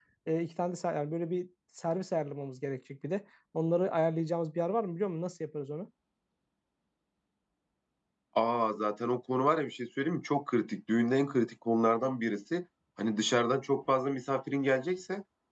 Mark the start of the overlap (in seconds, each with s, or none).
none